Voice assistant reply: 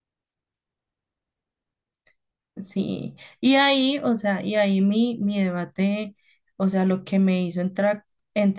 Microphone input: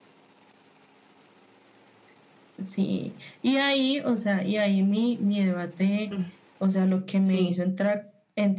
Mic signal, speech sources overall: both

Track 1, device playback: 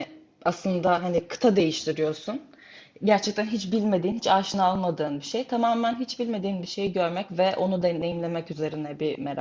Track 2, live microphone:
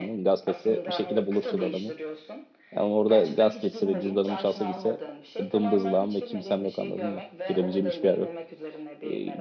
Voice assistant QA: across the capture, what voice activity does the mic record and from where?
both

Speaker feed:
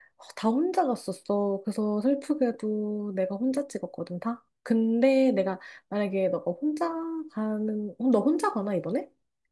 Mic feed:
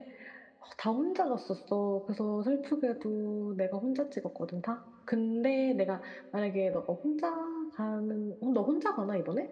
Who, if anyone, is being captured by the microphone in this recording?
echo only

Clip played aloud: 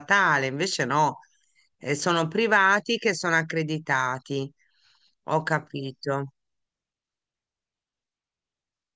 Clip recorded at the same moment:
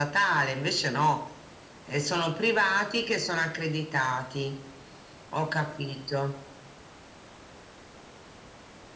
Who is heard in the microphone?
echo only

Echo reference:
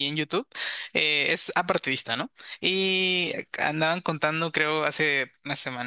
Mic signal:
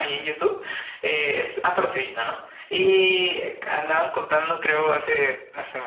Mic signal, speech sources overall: echo only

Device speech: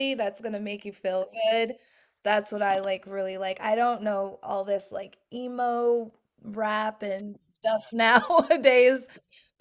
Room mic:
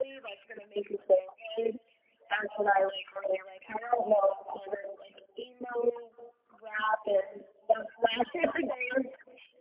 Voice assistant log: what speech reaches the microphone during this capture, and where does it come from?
echo only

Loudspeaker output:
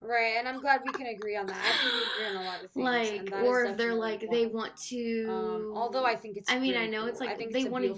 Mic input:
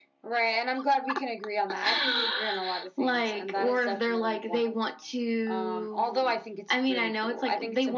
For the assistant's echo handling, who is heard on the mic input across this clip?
echo only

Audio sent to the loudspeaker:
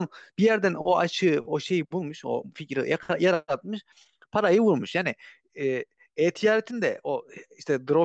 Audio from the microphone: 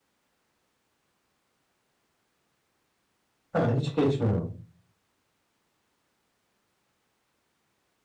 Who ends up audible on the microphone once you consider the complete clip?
user only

